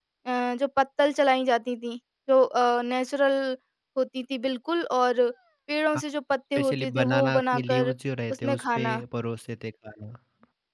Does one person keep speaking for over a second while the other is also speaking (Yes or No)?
Yes